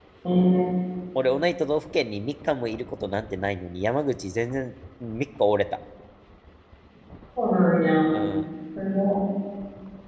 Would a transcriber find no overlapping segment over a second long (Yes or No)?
Yes